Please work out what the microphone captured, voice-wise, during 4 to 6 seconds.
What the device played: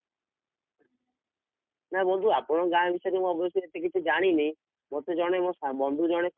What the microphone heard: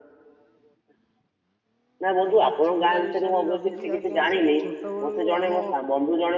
both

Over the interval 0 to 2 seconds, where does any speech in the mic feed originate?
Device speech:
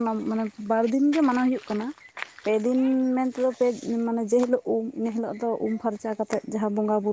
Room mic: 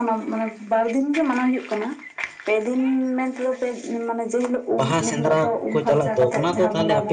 echo only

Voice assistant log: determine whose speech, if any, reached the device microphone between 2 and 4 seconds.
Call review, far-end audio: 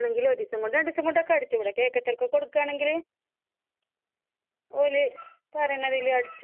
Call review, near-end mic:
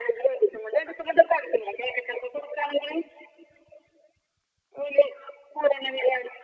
echo only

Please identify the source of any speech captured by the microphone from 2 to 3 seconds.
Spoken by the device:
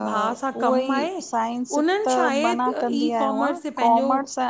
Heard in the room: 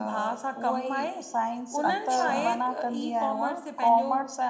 both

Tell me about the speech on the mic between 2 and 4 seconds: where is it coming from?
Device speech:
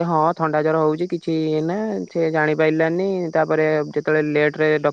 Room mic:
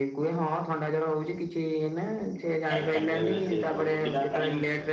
both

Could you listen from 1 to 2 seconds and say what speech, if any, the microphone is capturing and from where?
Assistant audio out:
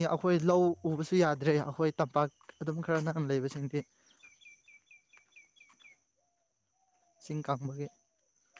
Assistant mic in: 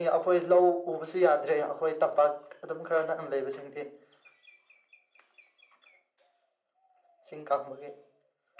echo only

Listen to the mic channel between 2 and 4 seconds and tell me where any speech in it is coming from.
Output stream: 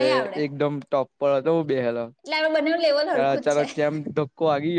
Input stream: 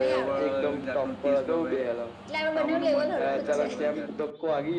both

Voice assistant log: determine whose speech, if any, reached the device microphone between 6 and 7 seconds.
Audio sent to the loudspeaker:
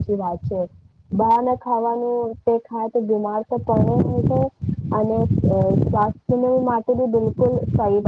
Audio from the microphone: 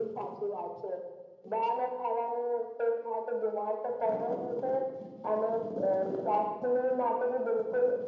echo only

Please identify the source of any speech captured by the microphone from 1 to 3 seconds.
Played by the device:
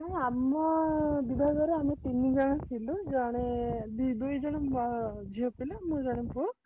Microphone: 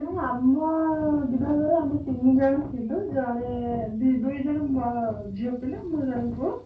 echo only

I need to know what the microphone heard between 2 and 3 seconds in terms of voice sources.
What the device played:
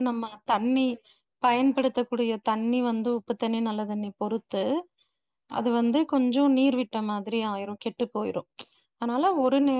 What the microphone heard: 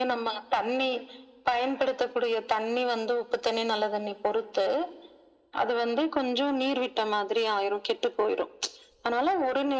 echo only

